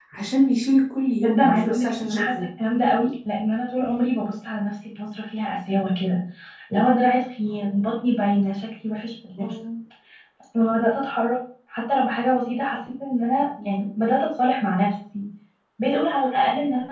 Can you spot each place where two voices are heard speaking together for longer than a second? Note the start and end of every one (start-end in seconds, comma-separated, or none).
1.2-2.4